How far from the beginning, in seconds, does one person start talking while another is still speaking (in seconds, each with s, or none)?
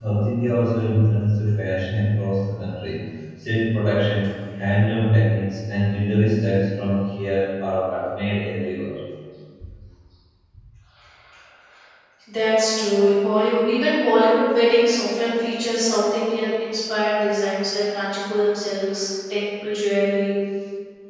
none